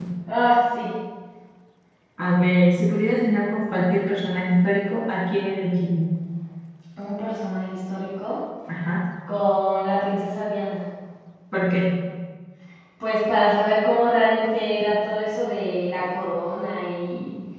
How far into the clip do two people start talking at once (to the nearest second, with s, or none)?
none